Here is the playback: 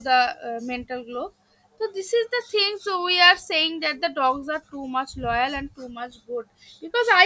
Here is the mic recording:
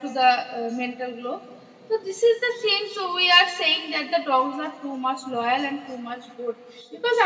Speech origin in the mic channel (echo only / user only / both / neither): echo only